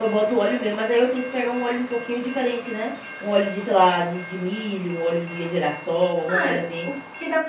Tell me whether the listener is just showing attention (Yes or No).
No